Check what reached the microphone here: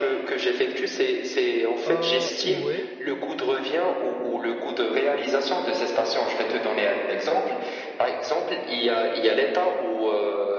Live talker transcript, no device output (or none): Ah, ouais,